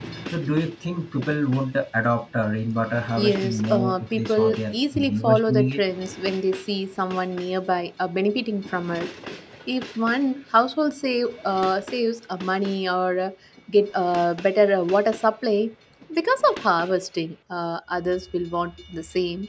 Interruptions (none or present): present